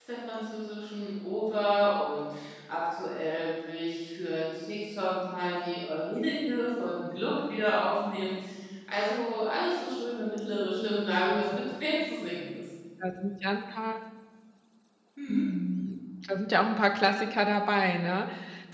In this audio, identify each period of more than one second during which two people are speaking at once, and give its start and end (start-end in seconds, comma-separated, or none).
none